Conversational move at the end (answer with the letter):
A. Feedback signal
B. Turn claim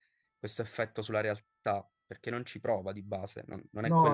B